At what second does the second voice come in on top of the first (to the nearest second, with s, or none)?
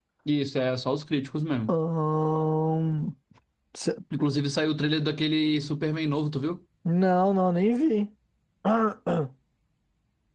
none